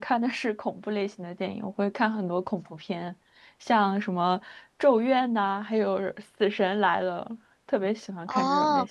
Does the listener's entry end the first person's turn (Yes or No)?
Yes